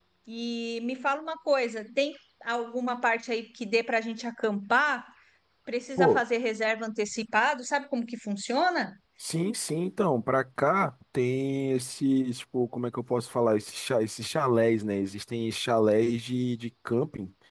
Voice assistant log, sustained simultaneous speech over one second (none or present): none